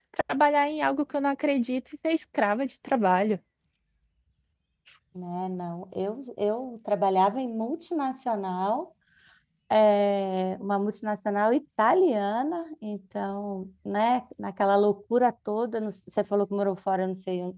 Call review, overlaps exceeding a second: none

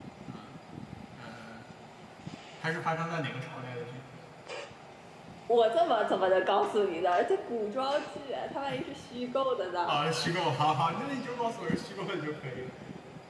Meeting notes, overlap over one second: none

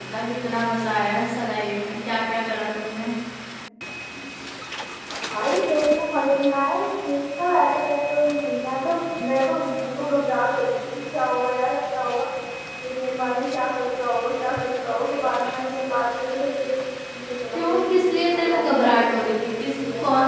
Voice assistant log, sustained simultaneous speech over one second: present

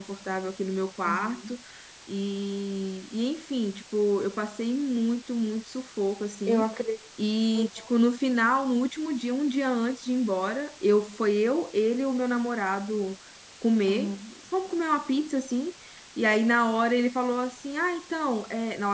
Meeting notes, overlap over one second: none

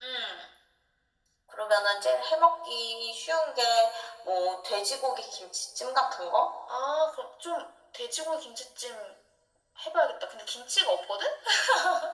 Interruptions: none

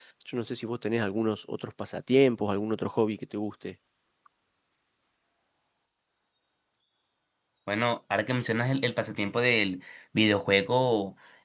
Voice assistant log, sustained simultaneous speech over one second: none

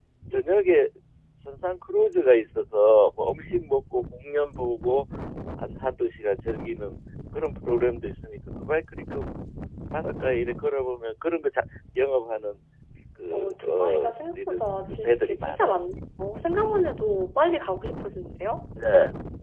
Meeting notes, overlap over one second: present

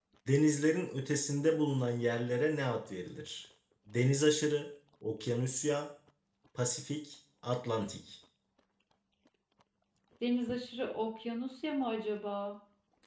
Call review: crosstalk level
none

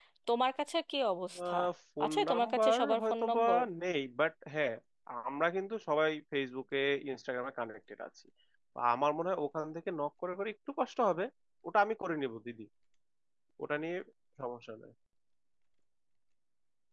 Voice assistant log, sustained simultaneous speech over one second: present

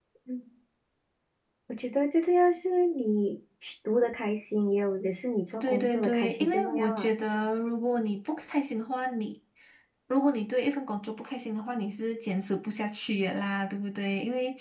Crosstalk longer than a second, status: present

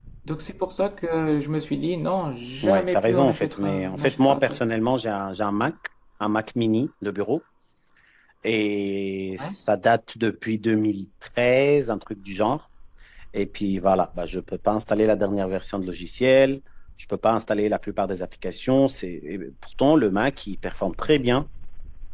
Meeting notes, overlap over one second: present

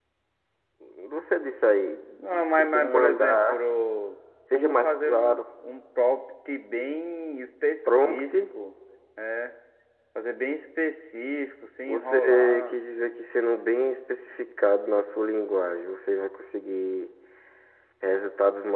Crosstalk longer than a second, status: present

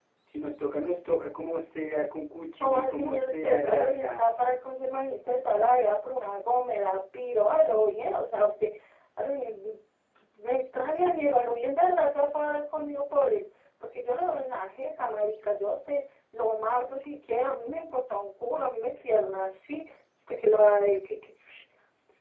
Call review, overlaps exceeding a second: present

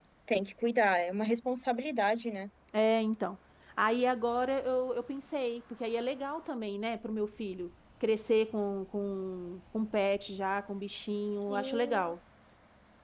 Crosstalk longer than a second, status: present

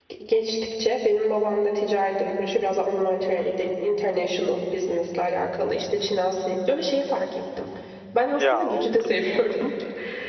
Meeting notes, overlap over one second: present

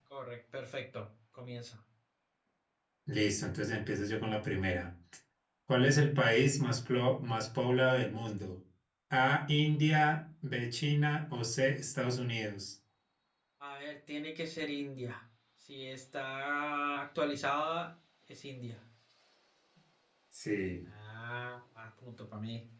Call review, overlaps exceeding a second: none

